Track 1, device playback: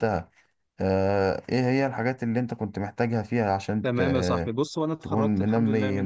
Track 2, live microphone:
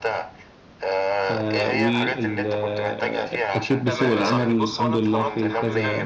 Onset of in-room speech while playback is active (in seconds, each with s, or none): 1.3 s